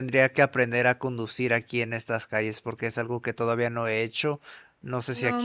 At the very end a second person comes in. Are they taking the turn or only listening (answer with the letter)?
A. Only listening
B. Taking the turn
B